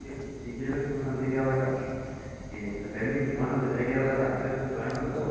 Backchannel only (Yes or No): No